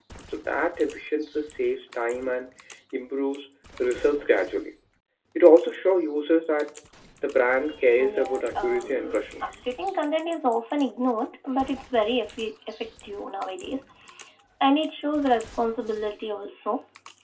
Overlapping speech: Yes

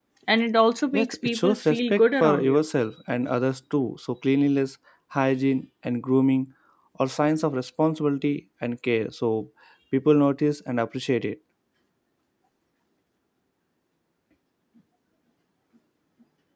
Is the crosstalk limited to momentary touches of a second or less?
No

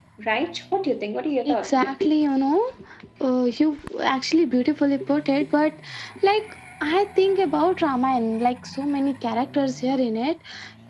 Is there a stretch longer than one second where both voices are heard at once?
No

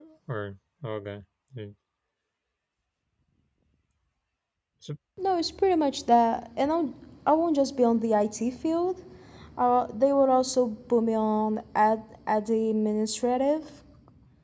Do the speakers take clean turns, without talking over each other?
Yes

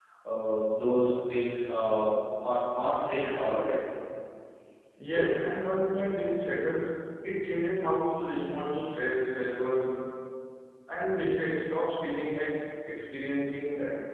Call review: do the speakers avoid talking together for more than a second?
Yes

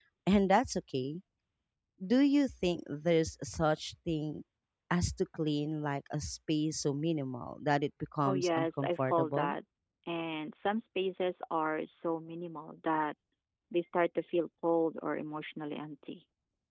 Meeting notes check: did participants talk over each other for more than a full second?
Yes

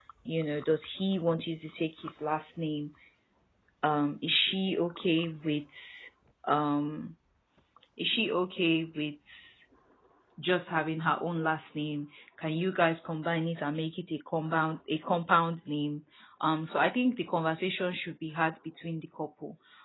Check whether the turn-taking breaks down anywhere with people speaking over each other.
No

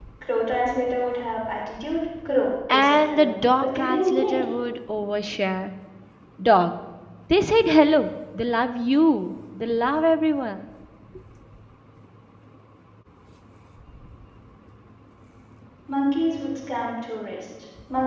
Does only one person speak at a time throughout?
No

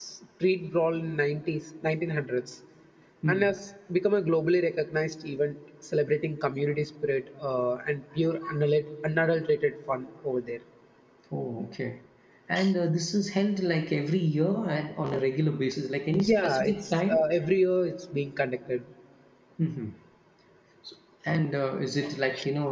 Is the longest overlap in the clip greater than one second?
Yes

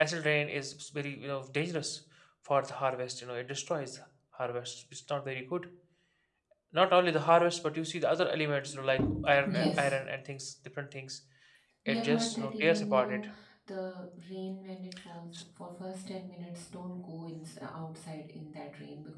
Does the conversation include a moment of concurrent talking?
Yes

